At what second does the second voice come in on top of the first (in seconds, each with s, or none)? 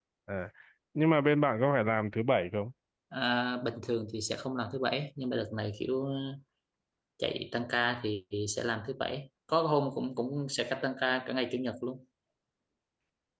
none